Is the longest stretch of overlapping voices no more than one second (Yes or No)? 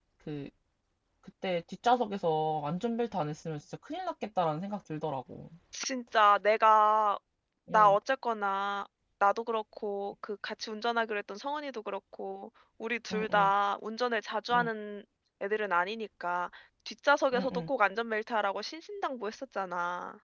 Yes